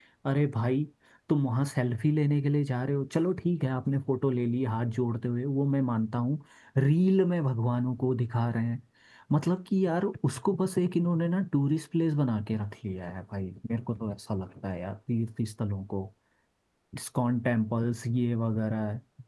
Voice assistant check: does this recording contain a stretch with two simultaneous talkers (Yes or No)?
No